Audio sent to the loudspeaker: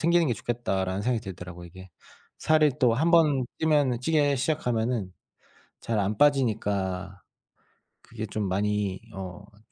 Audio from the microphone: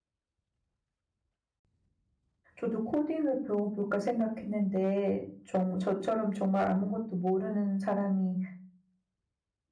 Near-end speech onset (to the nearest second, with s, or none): 3 s